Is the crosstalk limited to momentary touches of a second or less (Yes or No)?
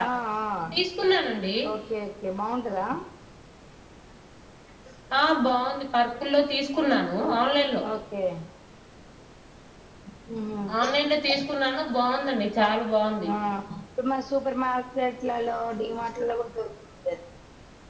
Yes